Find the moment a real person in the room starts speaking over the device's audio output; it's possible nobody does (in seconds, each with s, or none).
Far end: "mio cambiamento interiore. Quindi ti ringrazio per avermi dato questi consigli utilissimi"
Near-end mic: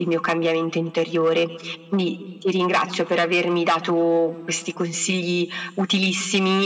none